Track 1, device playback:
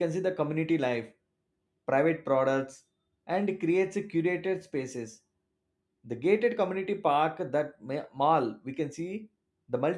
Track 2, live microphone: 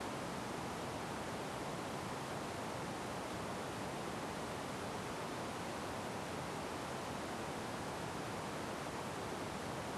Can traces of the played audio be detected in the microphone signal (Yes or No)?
No